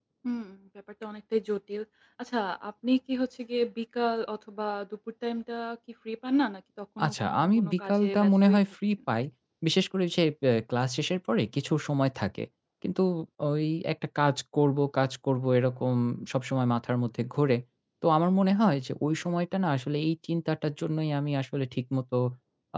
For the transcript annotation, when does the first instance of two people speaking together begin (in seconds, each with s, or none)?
7.0 s